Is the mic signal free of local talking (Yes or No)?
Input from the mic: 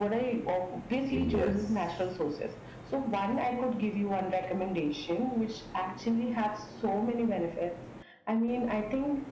No